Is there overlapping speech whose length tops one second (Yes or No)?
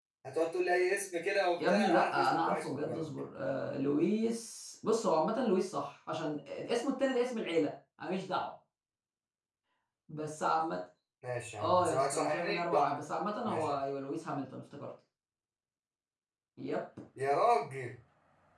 Yes